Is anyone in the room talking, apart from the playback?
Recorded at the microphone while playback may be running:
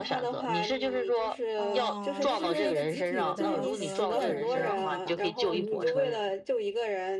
Yes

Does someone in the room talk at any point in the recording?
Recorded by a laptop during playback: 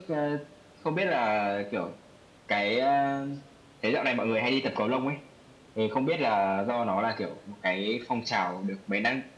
No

